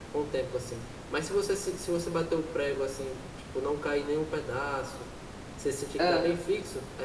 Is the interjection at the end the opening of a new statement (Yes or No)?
No